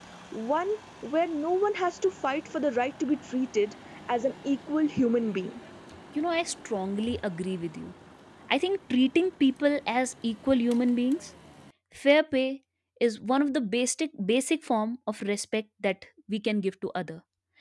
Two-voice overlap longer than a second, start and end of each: none

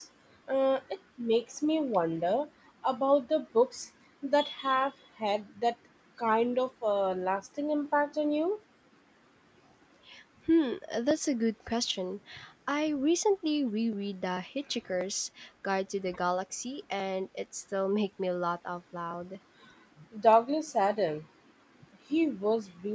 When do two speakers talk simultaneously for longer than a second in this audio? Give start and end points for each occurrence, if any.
none

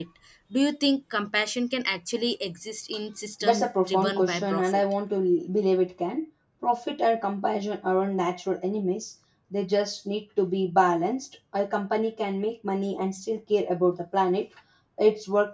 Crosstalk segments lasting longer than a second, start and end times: 3.4-4.8

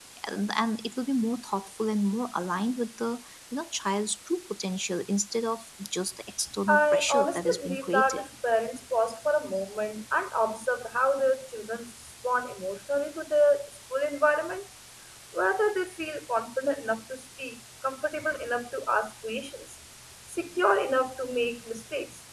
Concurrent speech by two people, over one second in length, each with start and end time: 6.7-8.2

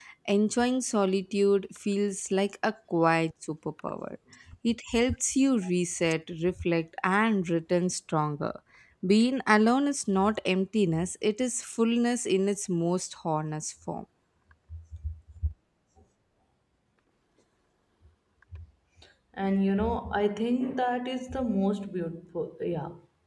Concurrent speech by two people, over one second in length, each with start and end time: none

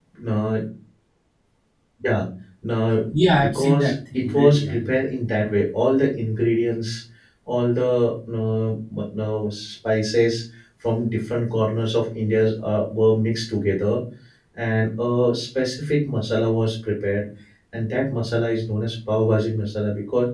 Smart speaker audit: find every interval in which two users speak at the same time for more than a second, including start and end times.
3.4-4.9

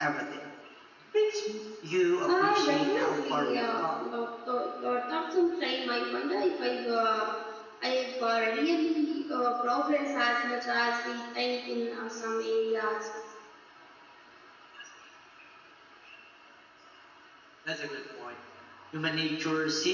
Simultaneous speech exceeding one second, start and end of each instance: 2.3-3.8

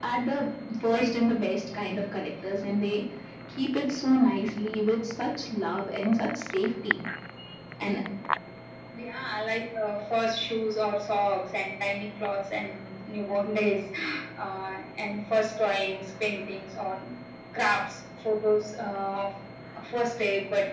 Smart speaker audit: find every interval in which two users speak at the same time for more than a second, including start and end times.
none

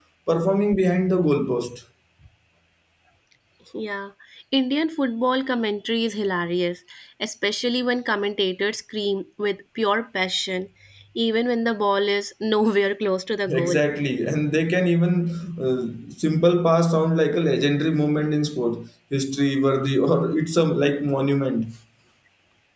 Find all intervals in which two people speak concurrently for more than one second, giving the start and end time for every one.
none

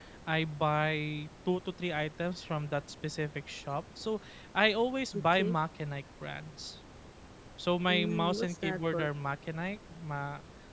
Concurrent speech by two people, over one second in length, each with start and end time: 7.9-9.1

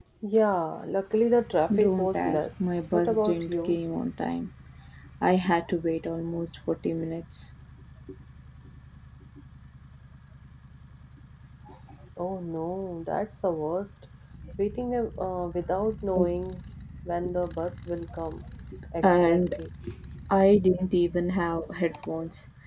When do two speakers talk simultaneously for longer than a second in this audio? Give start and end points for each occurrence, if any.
1.7-3.8

